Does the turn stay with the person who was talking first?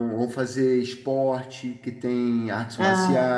Yes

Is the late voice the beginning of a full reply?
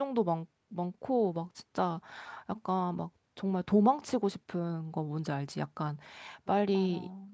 No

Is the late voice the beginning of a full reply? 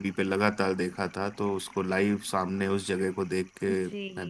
Yes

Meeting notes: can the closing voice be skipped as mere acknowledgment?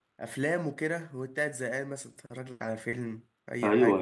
No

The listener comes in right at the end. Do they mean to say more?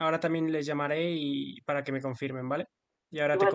Yes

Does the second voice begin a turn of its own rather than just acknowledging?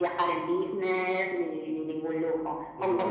No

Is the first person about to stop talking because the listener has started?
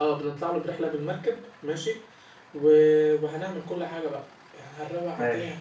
No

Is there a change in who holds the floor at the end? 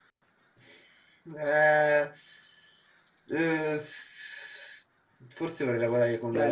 Yes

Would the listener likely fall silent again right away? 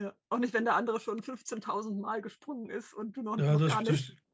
No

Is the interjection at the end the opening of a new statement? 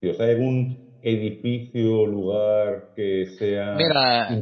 Yes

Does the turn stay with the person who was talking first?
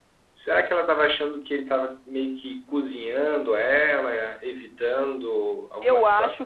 No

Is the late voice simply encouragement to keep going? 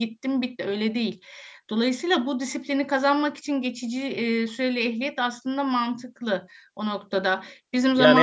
No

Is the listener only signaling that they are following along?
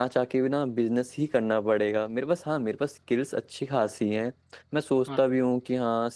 Yes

